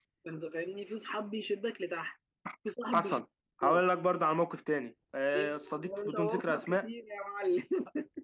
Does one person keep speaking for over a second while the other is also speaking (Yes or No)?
Yes